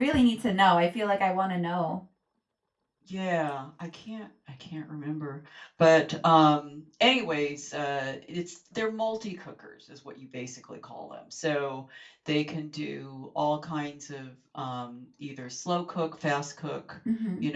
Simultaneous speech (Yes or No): No